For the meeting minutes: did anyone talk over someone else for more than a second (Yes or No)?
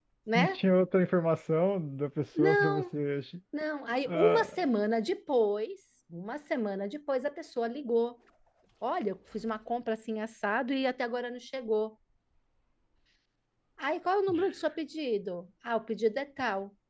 No